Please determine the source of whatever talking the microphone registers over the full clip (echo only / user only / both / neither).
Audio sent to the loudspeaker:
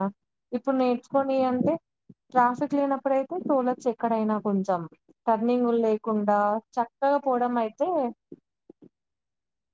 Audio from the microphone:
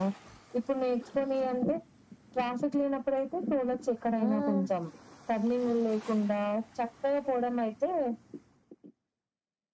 both